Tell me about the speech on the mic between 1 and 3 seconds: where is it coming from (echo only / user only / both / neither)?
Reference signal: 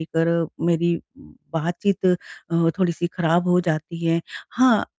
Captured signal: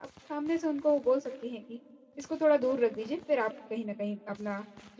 user only